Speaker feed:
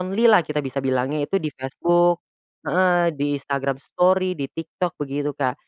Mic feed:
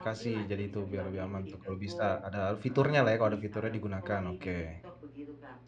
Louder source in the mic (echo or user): user